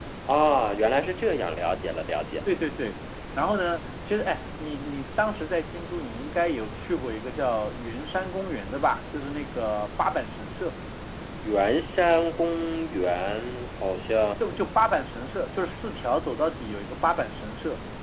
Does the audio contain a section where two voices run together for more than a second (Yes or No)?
No